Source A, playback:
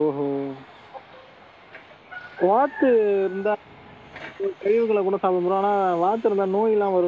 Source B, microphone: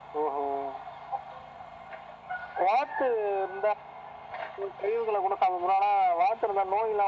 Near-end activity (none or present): none